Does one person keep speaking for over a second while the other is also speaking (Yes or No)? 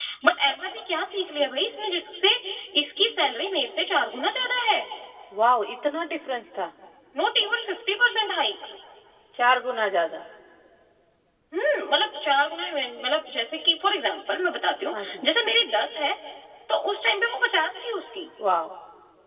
No